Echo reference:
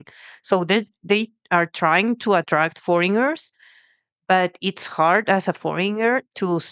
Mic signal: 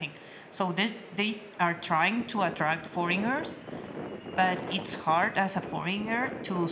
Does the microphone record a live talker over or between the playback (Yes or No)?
No